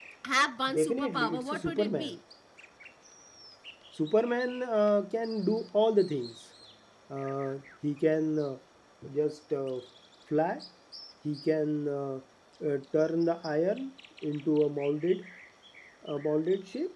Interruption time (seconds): 1 s

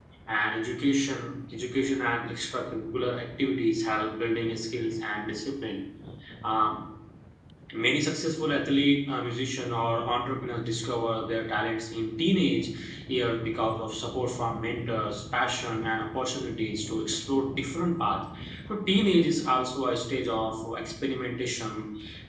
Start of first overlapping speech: none

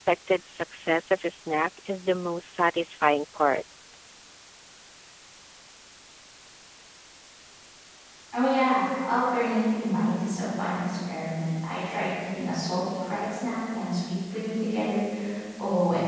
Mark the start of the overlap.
none

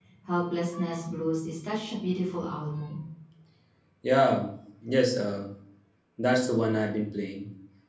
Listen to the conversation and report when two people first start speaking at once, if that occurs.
none

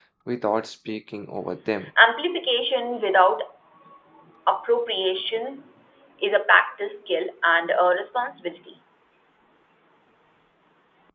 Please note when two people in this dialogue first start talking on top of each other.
none

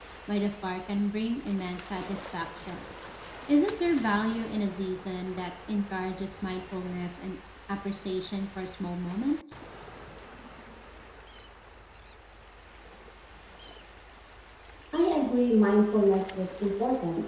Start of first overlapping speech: none

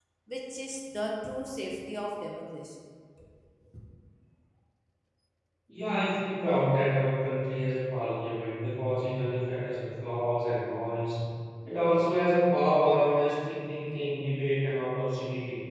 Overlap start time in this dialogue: none

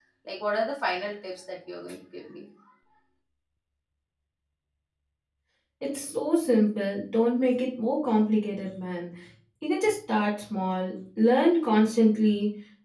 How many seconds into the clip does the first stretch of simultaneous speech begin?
none

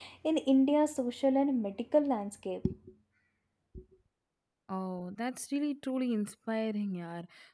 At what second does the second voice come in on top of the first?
none

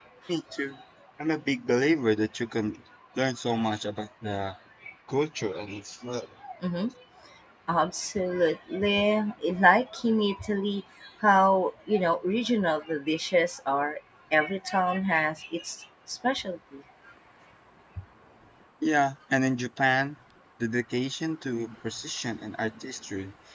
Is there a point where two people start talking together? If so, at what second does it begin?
none

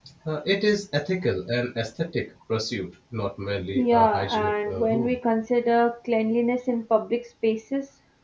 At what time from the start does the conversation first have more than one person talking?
4 s

